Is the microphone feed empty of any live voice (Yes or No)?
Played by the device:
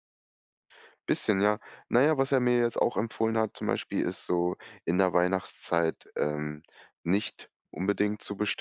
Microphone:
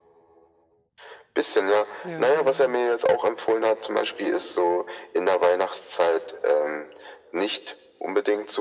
No